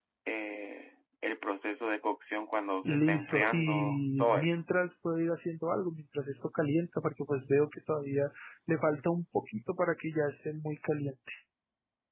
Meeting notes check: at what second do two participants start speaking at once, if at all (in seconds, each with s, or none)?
2.9 s